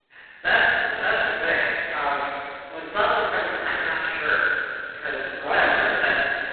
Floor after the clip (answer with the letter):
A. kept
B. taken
A